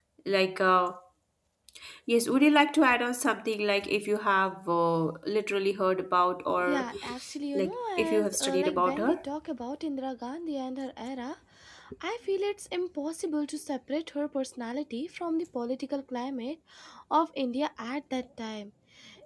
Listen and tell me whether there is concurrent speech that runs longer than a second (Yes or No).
Yes